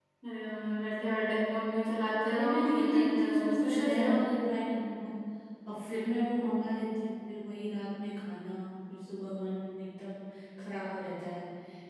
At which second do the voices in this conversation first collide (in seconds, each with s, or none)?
2.2 s